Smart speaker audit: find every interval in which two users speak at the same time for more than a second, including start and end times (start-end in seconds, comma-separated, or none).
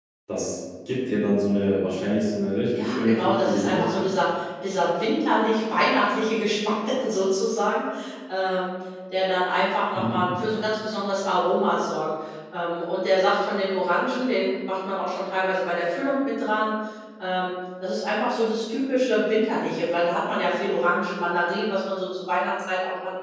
2.8-4.2